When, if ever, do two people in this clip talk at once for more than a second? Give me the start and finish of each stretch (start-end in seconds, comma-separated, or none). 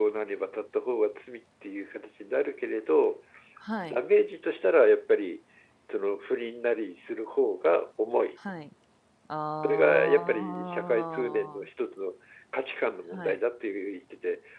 9.6-11.6